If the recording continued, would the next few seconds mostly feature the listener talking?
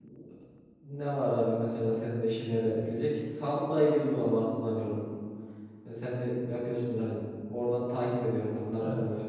No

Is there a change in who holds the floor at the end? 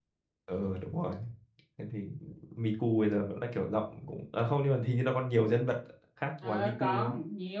Yes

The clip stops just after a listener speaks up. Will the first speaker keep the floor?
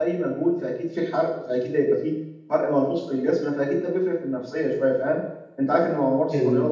Yes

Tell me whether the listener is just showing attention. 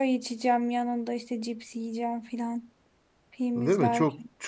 No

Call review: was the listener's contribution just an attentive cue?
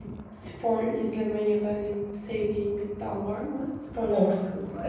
No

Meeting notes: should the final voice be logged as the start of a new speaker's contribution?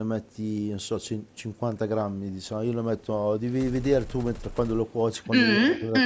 Yes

